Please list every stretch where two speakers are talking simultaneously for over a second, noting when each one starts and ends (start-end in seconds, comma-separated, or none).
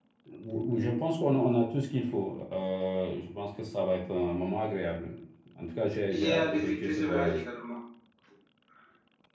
6.1-7.4